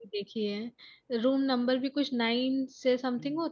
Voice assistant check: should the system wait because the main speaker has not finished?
No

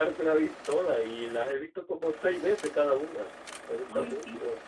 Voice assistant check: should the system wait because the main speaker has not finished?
No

